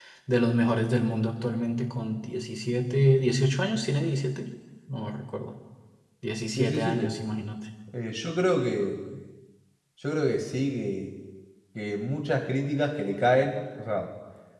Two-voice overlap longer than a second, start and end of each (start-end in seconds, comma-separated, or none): none